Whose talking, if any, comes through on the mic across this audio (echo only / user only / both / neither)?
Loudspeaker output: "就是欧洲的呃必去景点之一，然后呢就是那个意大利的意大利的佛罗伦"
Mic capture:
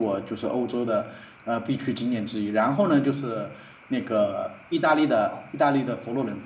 both